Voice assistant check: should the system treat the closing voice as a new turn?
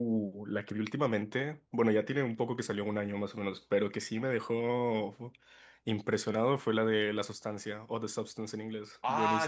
Yes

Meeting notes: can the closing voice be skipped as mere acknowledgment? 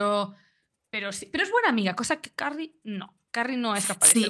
No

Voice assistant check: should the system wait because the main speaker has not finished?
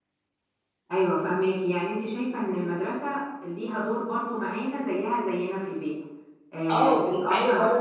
No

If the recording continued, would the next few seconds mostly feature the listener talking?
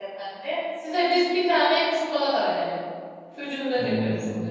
Yes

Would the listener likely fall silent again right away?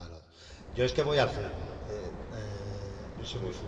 Yes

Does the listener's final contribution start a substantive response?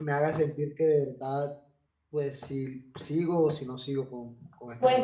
Yes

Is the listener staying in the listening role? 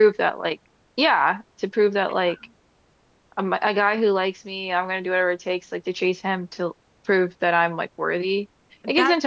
No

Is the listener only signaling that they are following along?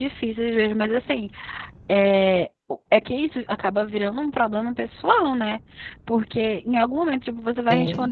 Yes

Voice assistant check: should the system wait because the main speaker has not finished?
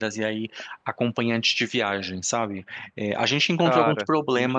Yes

